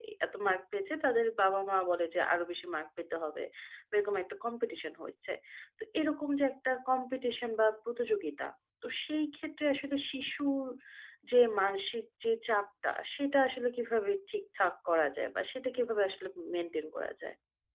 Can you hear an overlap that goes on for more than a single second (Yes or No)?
No